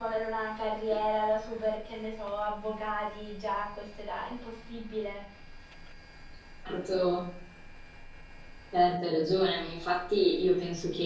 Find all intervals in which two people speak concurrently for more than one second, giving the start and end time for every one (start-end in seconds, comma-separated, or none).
none